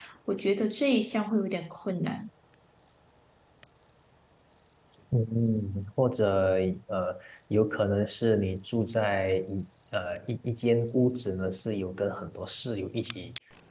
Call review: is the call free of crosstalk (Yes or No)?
Yes